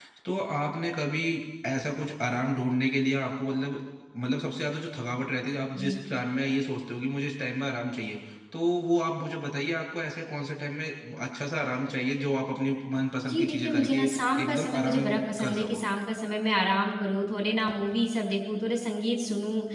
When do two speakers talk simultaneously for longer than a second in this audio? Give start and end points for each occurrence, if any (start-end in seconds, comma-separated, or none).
13.2-15.8